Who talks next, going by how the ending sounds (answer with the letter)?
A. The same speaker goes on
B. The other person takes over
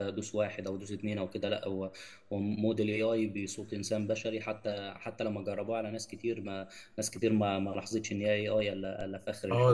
B